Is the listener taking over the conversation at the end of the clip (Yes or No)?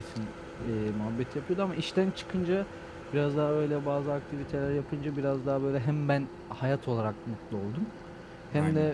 No